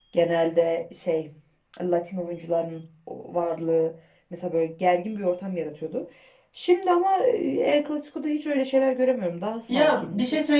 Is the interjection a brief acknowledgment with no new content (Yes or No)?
No